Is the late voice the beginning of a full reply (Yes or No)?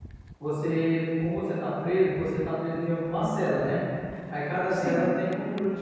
No